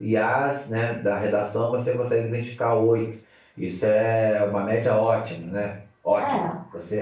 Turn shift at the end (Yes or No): No